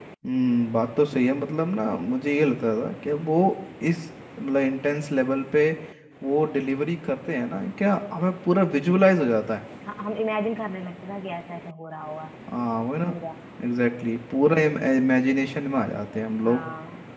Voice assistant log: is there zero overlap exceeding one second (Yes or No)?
Yes